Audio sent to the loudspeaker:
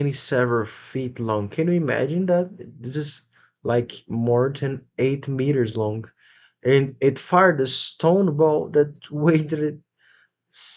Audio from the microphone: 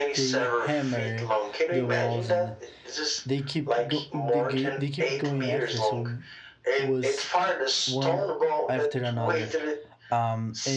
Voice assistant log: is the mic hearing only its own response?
No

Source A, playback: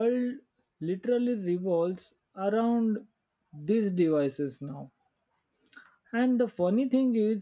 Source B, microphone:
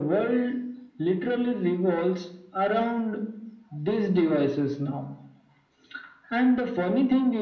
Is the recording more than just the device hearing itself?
No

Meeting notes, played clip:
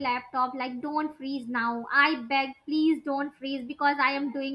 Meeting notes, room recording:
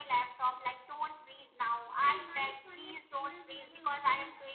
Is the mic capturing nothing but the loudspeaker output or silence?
No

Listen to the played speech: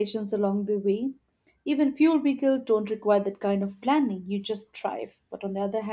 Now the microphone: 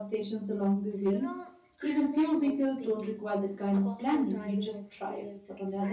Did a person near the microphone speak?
Yes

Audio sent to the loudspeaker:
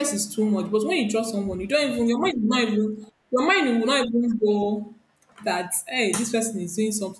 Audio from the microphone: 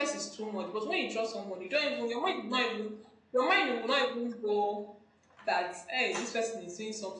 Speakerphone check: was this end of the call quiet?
Yes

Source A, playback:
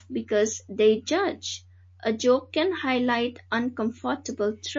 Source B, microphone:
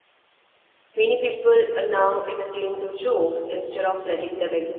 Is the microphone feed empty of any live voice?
No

